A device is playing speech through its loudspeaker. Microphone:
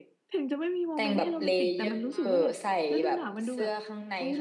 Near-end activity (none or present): present